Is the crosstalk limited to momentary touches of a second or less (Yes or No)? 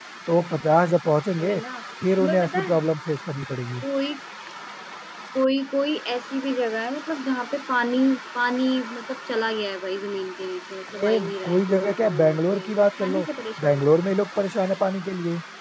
No